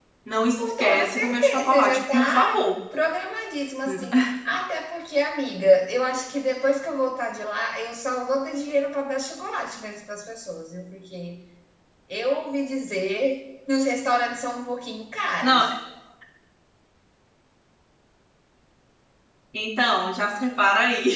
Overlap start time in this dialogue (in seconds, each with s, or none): 0.6 s